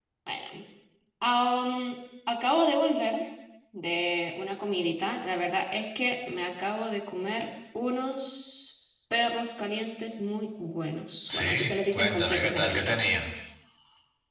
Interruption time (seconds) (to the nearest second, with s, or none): 11 s